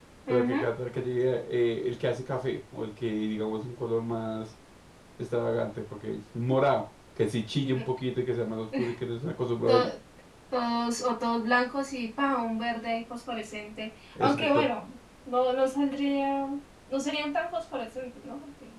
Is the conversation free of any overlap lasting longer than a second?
Yes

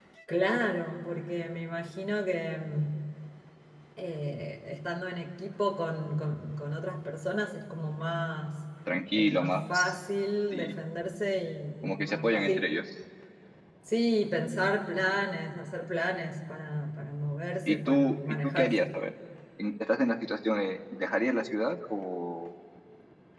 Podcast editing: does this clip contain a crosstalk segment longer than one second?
Yes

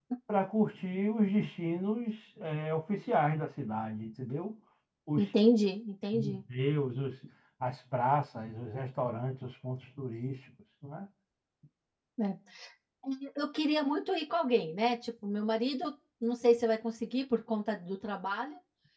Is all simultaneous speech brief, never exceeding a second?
Yes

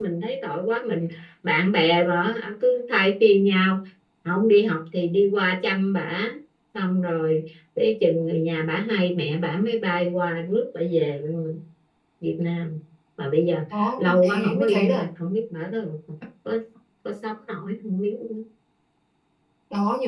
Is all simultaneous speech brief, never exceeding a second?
No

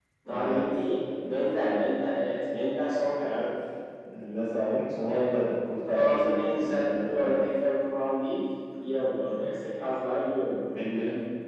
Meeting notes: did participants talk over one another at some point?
Yes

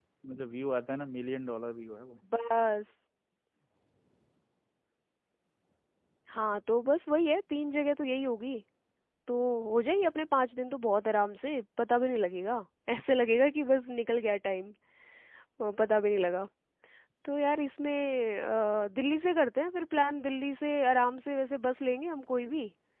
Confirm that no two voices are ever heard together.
Yes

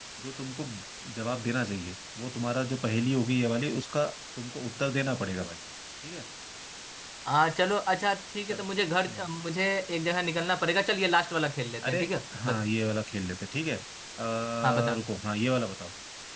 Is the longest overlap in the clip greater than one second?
No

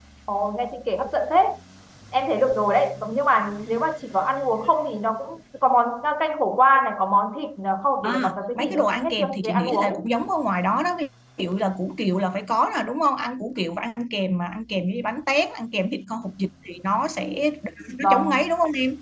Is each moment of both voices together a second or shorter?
No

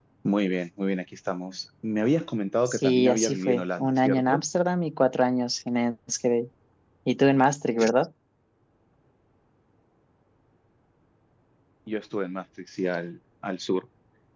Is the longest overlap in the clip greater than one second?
Yes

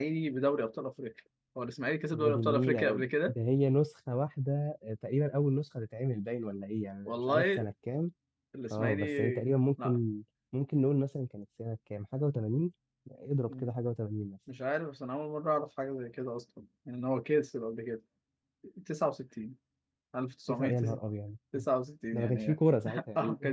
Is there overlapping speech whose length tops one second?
Yes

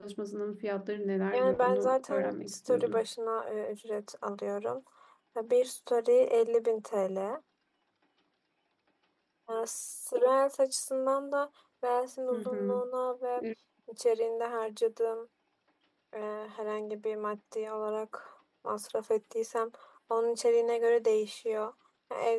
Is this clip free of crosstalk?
No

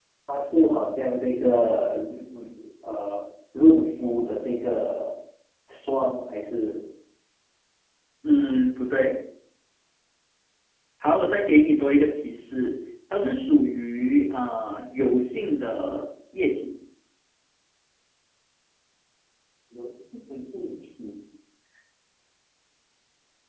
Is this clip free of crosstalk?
Yes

